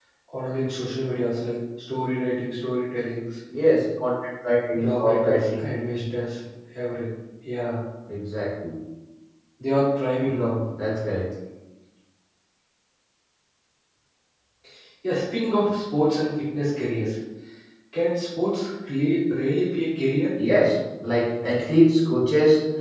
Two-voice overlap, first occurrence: 4.7 s

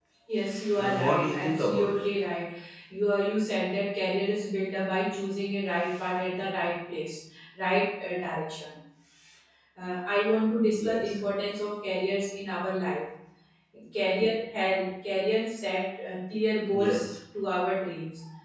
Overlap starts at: 0.8 s

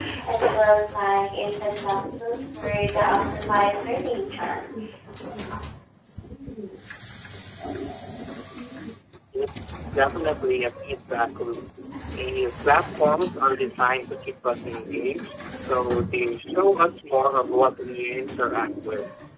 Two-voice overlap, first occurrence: none

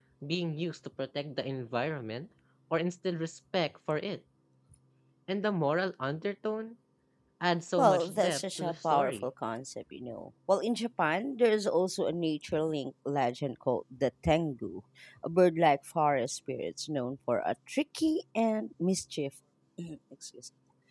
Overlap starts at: 7.8 s

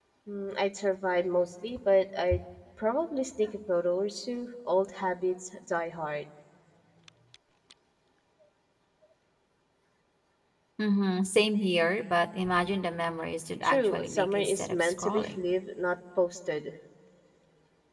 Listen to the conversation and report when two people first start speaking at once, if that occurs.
13.6 s

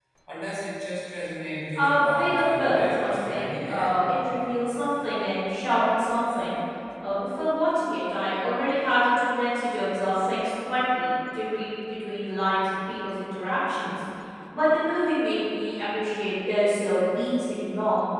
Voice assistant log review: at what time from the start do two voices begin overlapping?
1.8 s

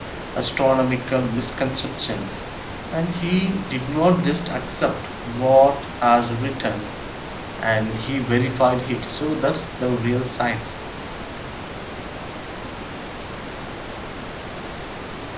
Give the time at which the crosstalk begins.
none

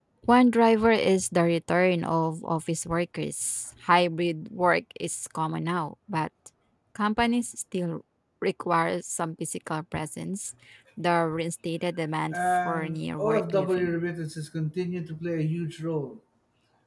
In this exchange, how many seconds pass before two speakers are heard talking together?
12.3 s

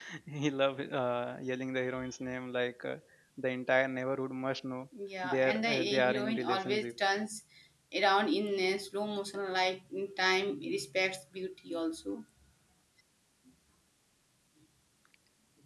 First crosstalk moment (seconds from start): 5.2 s

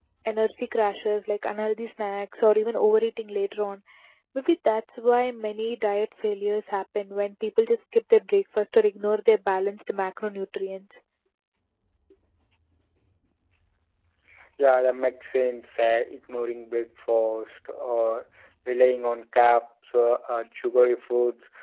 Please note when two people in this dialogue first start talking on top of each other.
none

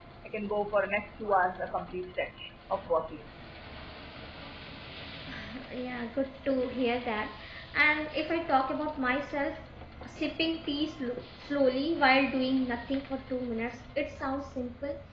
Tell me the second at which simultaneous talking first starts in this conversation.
none

